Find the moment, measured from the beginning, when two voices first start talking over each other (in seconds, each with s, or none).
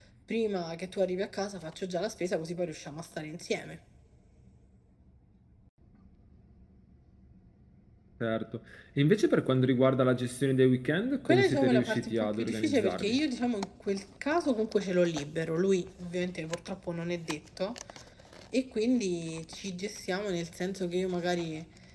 11.2 s